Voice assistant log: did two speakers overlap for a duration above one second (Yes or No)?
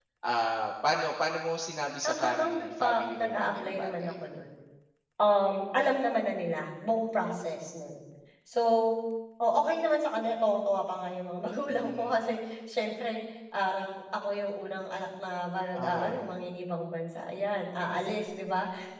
Yes